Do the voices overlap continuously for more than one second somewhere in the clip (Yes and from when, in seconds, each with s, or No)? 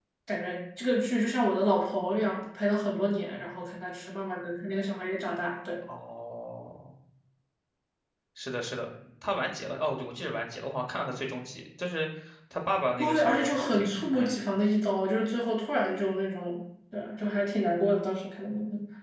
Yes, from 13.0 s